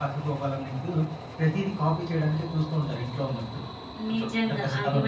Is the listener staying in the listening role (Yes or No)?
No